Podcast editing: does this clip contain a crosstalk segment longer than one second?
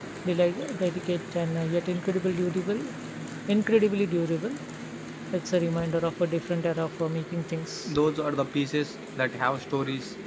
No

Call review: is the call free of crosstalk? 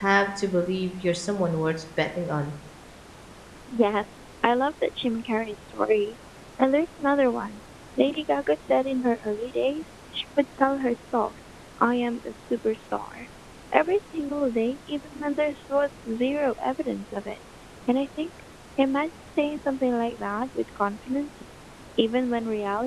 Yes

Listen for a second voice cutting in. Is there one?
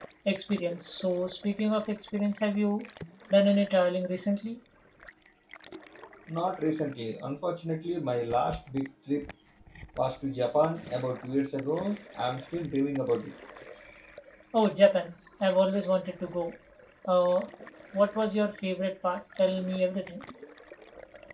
No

